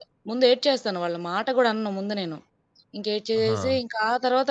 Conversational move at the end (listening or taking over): listening